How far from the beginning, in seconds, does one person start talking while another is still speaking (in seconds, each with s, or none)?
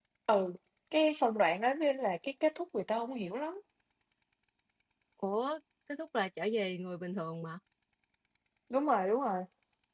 none